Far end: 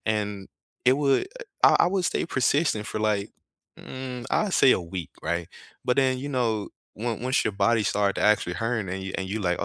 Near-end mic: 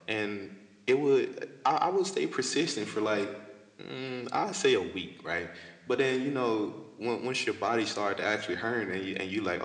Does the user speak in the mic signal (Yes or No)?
No